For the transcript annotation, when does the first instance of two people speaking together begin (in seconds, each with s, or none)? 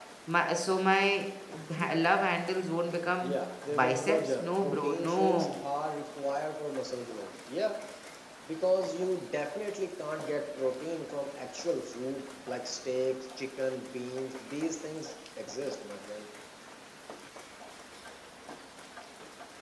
3.7 s